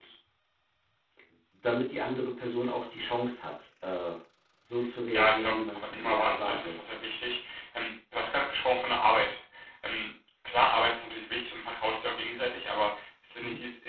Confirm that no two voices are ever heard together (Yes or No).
No